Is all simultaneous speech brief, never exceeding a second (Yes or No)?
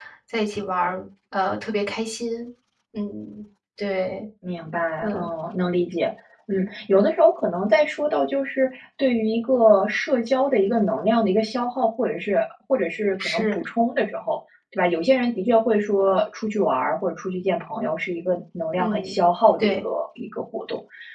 Yes